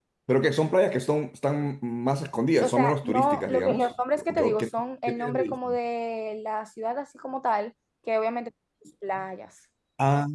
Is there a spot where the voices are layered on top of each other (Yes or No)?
Yes